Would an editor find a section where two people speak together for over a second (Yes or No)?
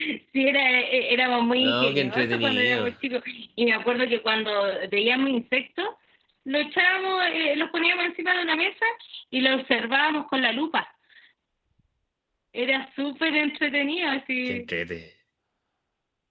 Yes